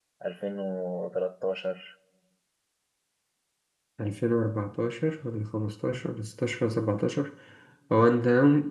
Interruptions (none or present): none